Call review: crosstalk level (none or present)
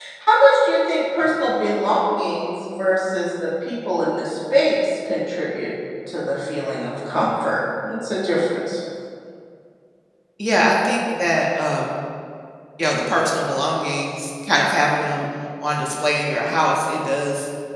none